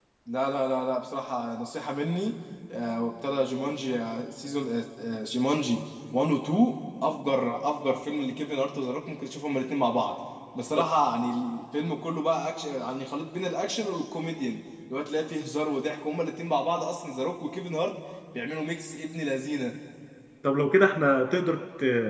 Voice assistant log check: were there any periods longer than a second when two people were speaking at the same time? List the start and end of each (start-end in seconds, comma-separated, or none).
none